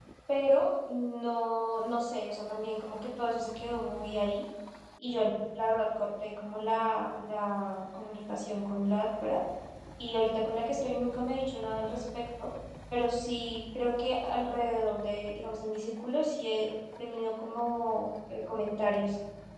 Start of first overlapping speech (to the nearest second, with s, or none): none